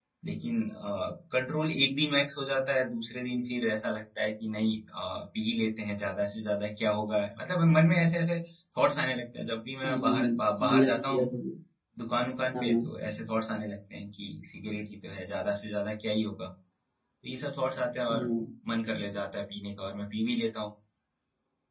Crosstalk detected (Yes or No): Yes